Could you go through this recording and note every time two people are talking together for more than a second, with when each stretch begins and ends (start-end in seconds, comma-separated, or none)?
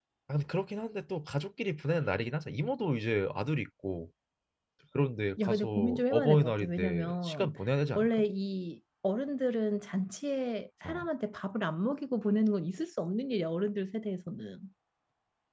5.4-7.5